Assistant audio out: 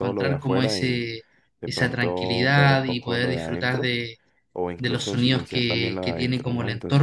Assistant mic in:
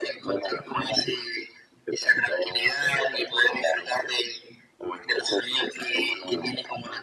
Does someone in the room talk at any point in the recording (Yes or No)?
No